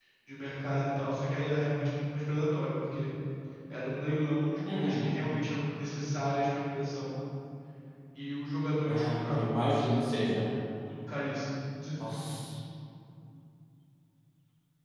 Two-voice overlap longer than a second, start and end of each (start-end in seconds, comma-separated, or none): 8.8-10.3